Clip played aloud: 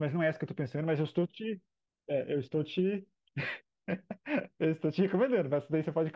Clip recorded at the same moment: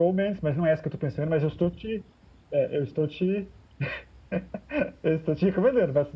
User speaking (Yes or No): No